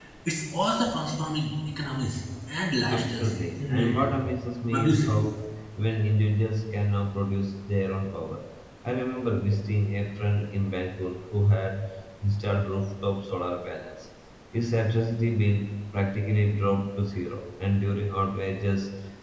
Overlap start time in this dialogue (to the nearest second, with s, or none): 3 s